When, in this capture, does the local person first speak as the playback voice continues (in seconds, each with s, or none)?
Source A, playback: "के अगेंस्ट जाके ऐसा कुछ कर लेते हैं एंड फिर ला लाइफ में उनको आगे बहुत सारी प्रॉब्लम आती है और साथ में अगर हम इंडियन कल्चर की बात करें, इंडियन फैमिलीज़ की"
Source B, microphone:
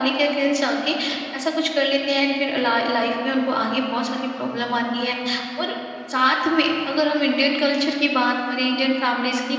none